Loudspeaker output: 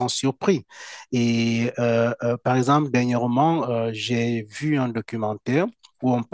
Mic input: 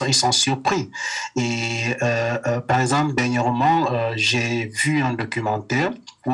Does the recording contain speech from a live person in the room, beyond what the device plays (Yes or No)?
No